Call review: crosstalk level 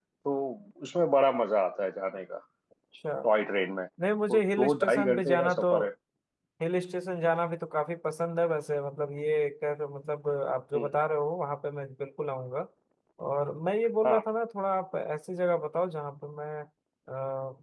present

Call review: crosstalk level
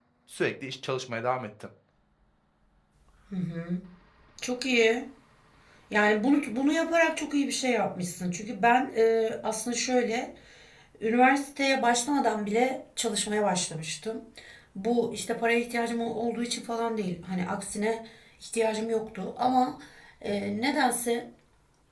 none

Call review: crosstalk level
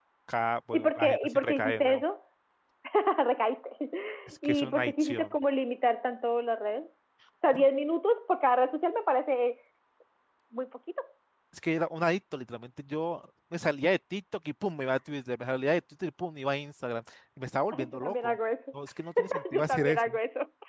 present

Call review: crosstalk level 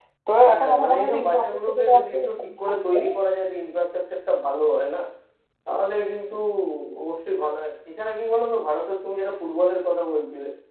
present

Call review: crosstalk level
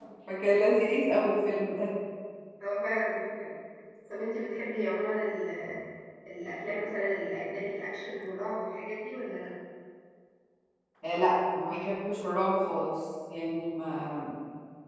none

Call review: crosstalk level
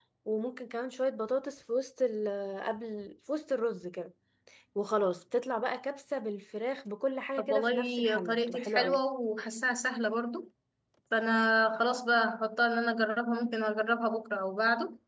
present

